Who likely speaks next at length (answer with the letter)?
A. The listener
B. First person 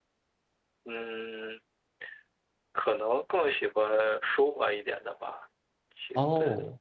B